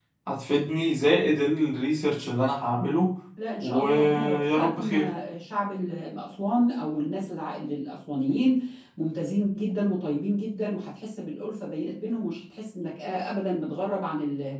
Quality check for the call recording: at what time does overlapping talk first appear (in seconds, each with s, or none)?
3.6 s